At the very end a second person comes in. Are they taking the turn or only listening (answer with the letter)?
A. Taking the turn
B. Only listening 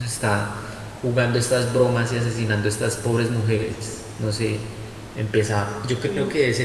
B